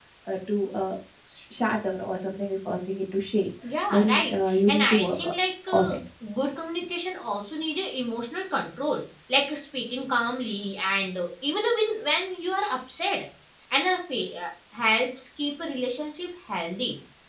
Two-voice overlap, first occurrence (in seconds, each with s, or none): 3.9 s